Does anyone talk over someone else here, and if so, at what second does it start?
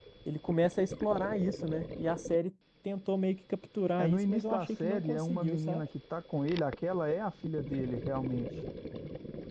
4.0 s

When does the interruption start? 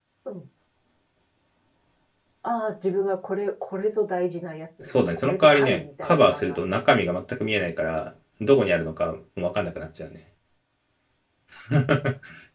4.8 s

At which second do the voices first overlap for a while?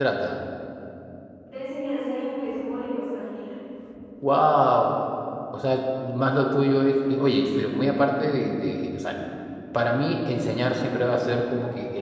none

